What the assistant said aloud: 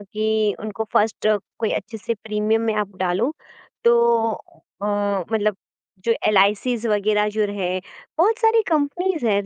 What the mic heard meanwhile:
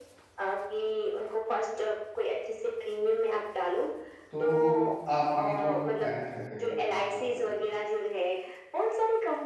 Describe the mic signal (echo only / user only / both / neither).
both